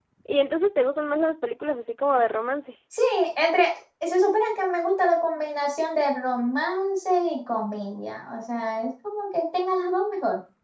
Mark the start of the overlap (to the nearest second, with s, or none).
none